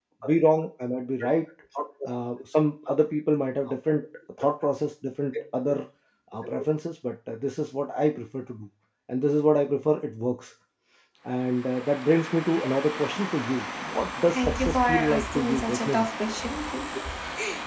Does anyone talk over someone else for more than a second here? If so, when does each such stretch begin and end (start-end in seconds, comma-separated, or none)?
14.3-16.1